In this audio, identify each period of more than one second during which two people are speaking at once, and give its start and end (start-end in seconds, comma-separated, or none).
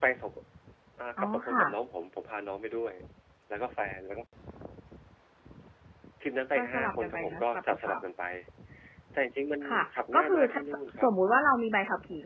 6.5-8.0, 9.7-11.1